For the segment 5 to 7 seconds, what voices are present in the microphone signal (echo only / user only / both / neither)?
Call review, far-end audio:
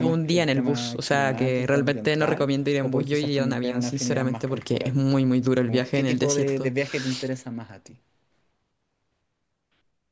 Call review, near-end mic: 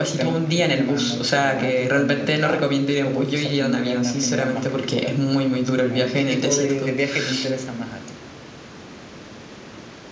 echo only